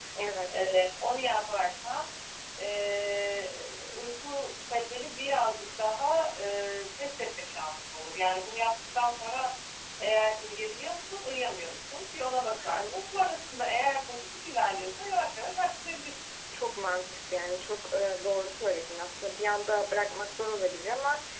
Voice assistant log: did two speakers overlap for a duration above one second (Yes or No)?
No